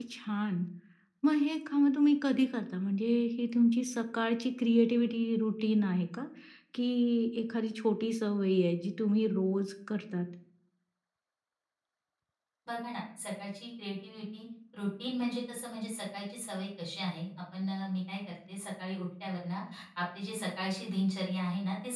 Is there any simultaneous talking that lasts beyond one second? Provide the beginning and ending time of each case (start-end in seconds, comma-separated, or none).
none